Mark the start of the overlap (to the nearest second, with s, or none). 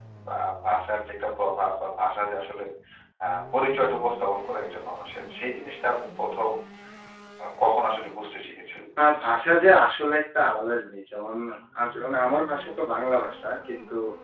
none